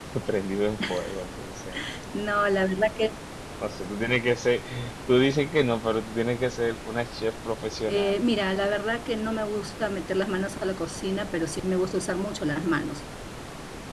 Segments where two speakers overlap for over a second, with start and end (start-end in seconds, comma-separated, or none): none